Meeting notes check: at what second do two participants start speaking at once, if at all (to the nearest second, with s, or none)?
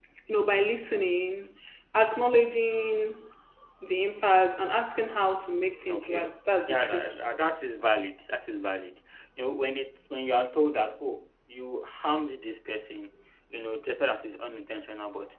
6 s